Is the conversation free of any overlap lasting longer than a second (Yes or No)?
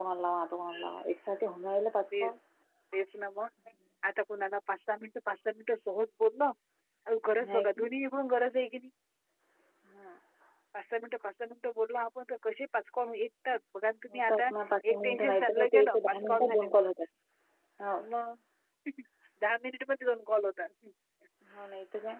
No